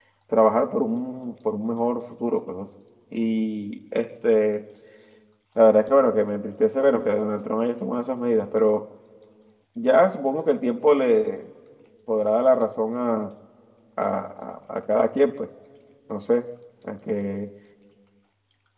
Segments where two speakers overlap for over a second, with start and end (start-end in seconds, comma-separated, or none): none